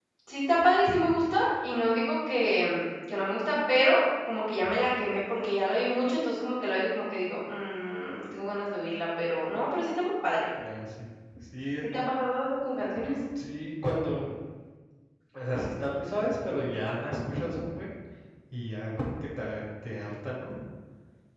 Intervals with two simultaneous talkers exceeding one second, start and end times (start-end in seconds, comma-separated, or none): none